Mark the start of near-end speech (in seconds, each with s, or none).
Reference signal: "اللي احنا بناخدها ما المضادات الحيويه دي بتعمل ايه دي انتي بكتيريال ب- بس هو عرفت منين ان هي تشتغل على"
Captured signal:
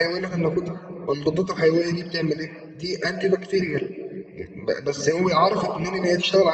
none